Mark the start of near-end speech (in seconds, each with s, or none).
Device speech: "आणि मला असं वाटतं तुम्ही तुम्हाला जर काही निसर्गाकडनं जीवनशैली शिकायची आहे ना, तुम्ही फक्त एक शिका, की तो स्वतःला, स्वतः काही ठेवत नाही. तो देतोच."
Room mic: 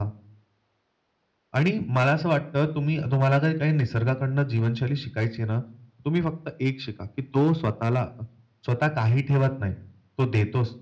none